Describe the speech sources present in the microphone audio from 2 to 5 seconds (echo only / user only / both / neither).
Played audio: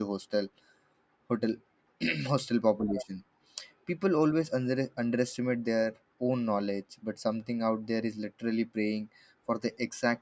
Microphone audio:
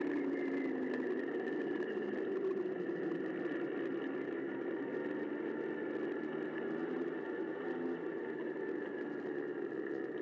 neither